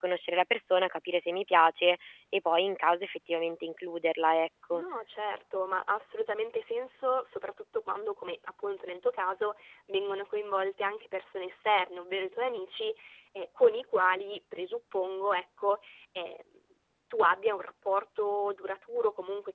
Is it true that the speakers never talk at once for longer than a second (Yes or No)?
Yes